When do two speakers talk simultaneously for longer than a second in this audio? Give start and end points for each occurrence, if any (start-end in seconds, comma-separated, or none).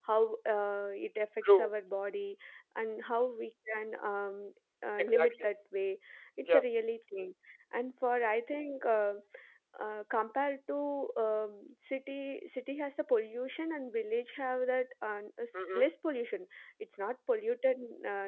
none